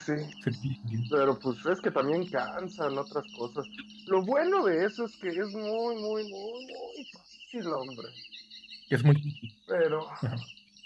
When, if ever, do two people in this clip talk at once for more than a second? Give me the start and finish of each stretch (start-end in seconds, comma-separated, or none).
none